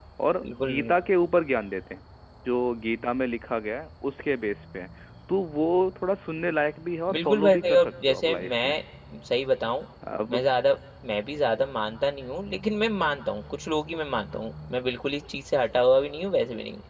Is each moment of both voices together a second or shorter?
No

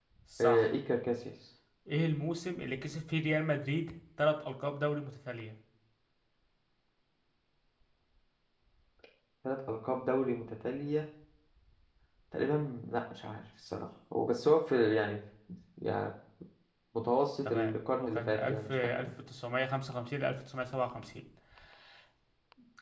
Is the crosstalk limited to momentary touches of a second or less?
No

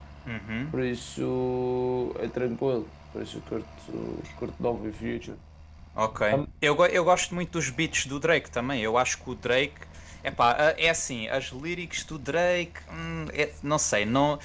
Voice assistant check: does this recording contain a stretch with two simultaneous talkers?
No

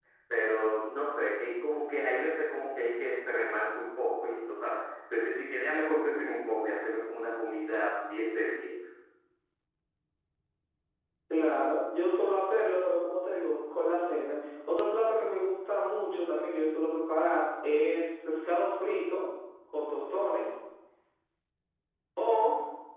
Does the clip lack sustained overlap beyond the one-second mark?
Yes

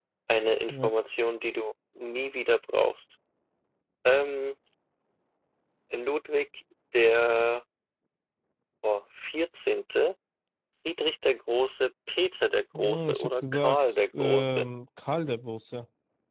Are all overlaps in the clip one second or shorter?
No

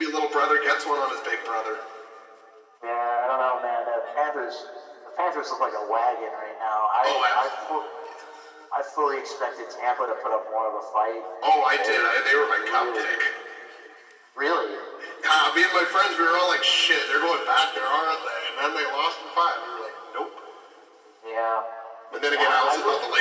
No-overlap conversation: No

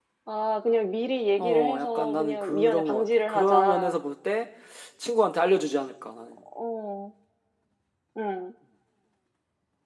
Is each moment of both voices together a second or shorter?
No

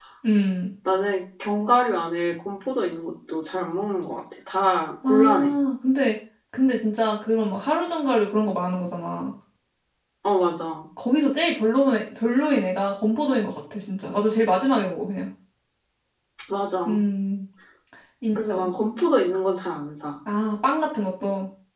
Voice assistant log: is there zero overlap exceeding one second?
Yes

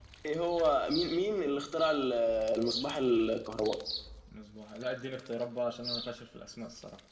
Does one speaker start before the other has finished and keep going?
No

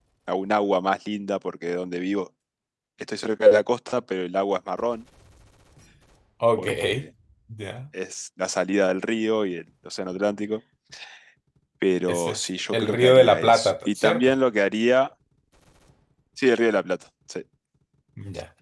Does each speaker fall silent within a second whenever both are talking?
No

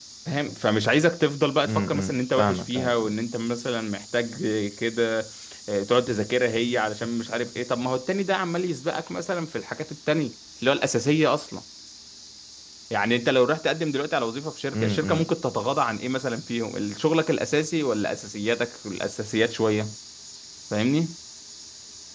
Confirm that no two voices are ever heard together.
No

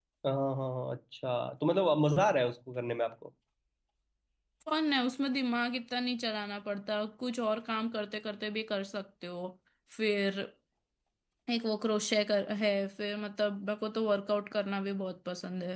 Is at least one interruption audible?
No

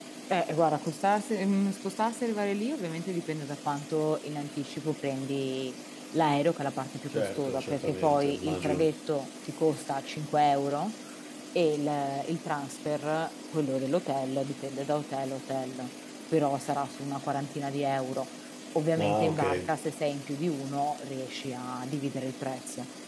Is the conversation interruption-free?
No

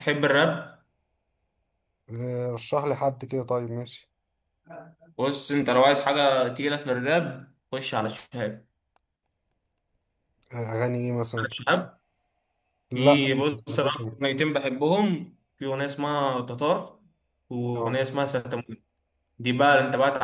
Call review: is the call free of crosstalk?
No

